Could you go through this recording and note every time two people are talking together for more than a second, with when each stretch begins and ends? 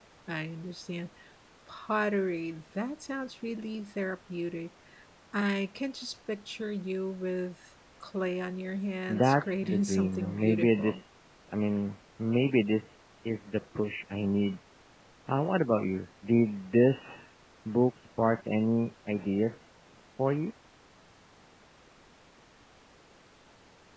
9.1-11.0

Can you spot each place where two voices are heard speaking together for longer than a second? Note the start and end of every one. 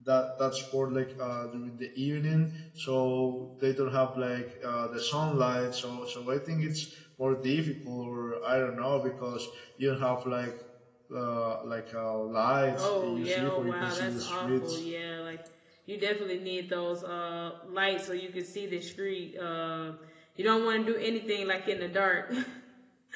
12.8-14.8

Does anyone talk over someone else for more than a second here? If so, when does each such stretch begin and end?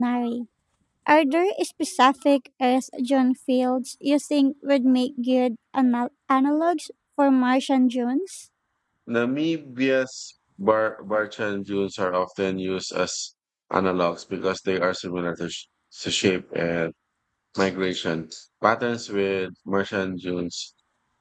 none

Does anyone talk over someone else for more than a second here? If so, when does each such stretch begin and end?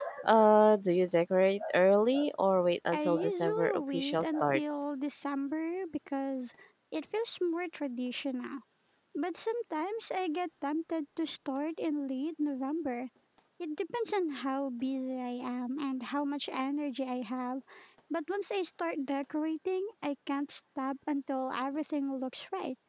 2.9-4.8

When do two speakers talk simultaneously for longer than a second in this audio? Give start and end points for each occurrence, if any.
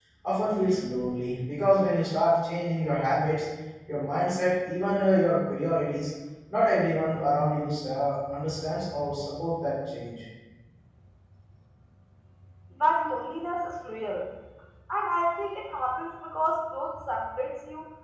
none

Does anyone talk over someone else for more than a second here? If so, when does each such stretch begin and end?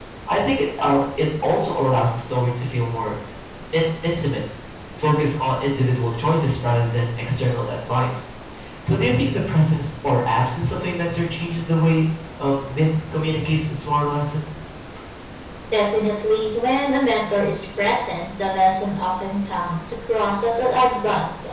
none

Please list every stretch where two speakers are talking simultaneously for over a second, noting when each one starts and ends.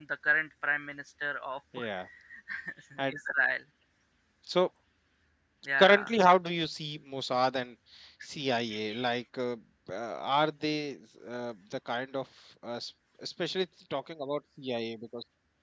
none

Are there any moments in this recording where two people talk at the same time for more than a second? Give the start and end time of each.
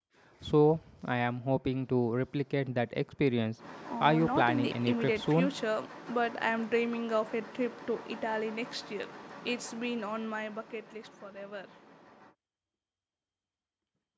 4.0-5.5

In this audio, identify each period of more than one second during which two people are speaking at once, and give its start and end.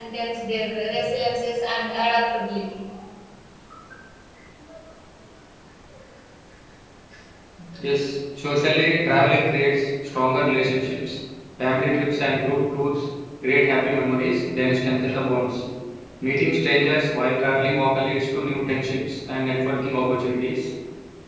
none

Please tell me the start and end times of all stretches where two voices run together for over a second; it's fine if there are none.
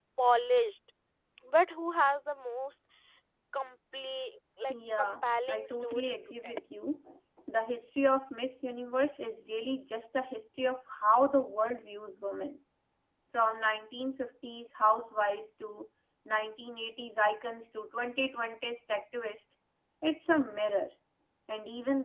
4.7-6.5

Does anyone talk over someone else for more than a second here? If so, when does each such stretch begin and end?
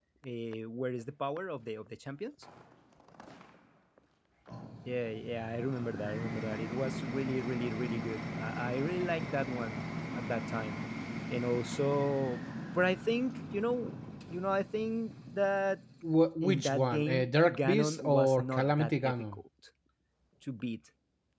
16.4-19.4

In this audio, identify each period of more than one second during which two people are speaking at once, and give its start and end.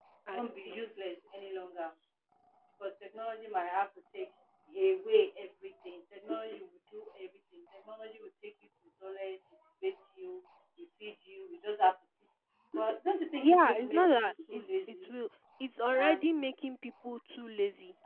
13.4-15.1

